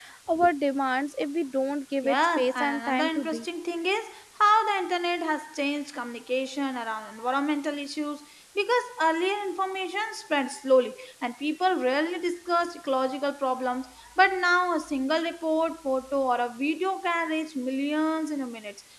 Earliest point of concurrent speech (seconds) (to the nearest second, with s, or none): 2 s